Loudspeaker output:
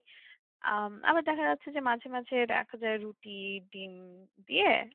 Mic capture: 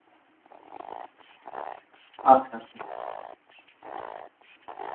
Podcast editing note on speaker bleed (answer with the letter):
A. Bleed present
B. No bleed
B